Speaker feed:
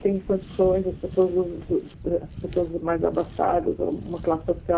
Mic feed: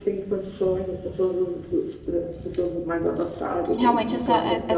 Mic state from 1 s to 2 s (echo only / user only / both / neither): echo only